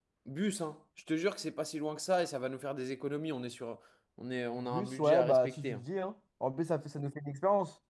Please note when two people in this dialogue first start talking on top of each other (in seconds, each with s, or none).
4.6 s